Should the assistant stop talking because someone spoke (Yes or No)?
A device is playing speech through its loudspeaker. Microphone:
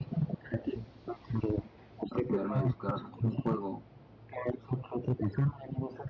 Yes